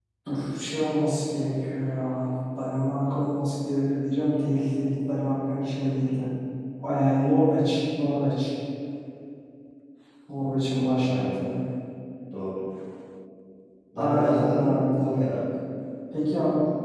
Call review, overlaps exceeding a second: present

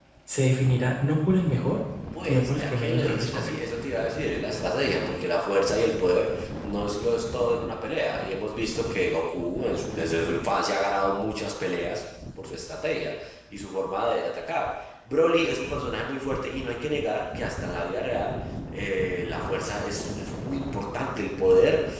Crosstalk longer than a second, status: present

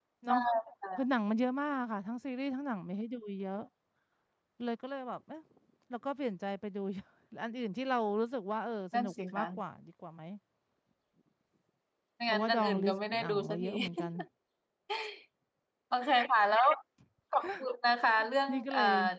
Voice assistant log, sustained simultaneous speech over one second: present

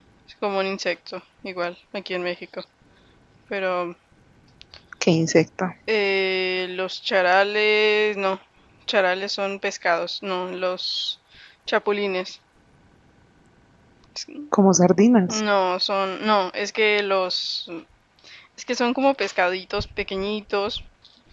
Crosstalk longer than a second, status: none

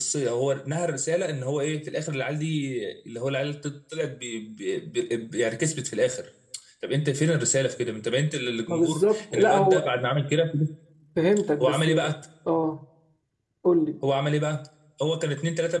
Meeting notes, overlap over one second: present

